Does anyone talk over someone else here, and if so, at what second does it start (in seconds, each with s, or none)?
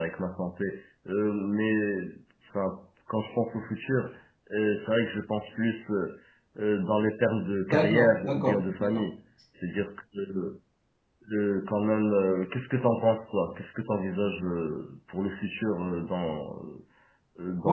7.7 s